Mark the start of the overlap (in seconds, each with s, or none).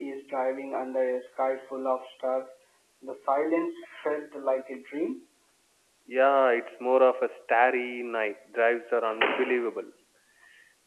none